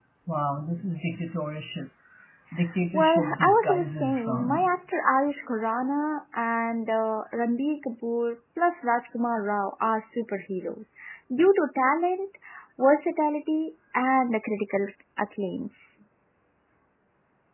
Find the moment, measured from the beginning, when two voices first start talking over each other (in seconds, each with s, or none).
2.9 s